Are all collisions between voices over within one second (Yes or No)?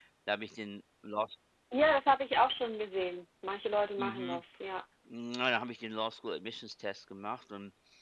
Yes